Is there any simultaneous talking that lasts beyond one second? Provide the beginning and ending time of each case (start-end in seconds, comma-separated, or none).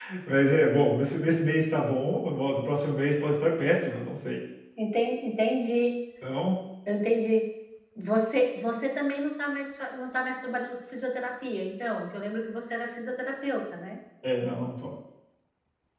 none